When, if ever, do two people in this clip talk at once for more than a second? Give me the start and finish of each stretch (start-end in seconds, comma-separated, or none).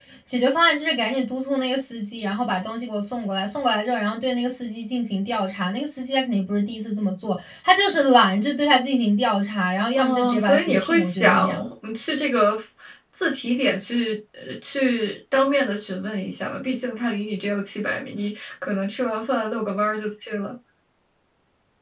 9.9-11.6